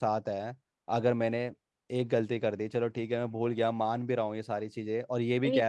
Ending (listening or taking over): taking over